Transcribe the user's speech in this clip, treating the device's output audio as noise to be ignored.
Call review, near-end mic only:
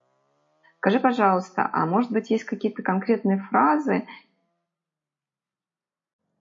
Скажи, пожалуйста, а может быть, есть какие-то конкретные фразы

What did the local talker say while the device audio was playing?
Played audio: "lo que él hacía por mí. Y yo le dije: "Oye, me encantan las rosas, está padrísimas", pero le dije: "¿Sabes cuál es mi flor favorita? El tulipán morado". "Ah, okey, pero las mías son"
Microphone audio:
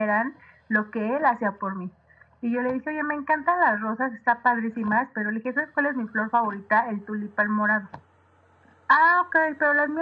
none

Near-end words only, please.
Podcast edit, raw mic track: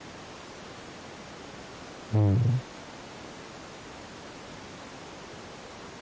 嗯，

